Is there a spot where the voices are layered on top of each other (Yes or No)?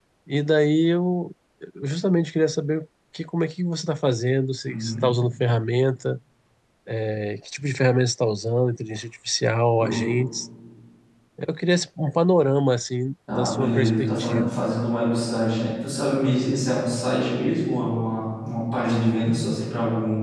Yes